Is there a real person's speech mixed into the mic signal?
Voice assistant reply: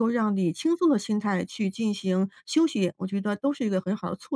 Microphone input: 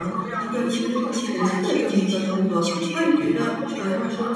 Yes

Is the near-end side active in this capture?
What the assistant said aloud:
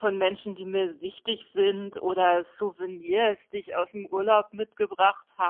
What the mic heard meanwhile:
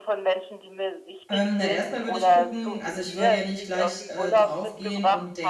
Yes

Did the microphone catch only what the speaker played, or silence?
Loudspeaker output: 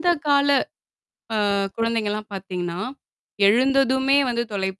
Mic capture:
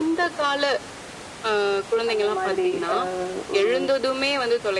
No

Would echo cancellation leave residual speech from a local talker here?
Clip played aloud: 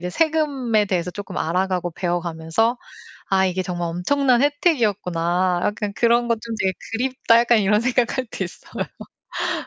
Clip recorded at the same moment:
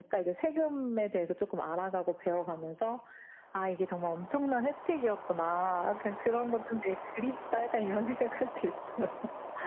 No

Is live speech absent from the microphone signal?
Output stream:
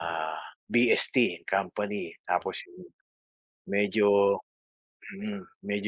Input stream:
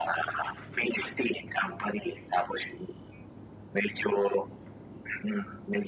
Yes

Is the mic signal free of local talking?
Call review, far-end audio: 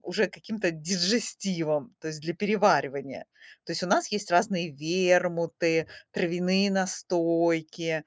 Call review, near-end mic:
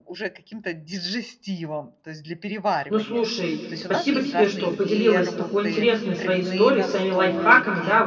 No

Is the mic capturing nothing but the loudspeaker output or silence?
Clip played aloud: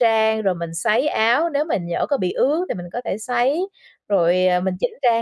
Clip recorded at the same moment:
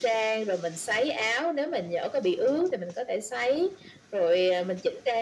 Yes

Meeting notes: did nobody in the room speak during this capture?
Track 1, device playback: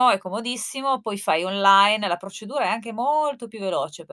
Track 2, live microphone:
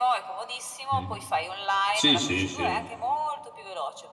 No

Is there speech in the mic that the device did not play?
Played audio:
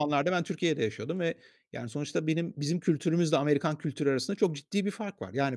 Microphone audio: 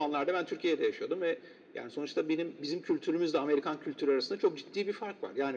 No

